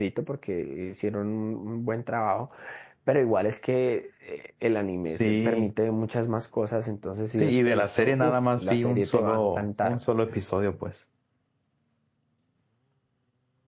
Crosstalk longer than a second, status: present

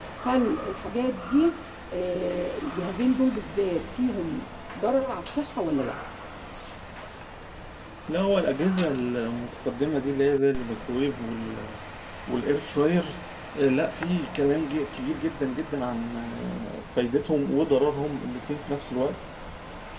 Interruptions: none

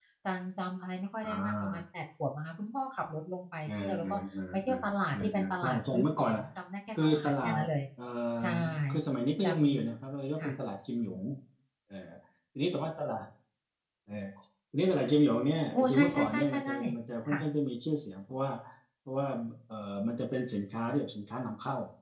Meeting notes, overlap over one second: present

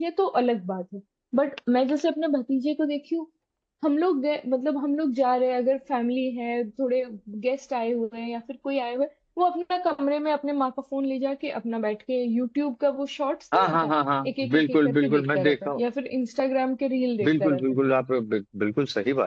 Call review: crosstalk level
present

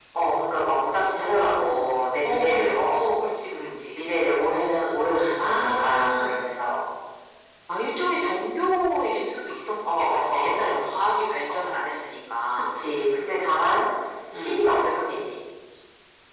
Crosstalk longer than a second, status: present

